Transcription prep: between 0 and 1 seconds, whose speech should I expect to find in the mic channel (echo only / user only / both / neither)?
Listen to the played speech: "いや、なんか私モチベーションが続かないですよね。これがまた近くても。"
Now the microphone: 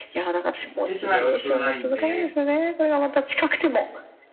both